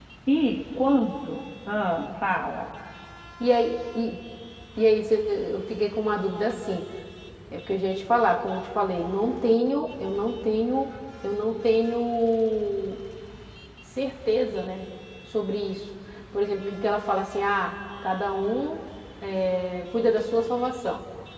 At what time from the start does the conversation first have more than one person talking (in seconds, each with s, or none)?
none